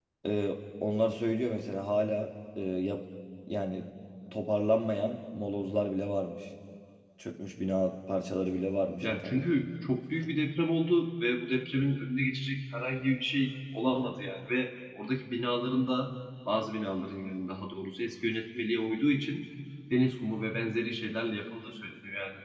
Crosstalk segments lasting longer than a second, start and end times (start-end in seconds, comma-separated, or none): none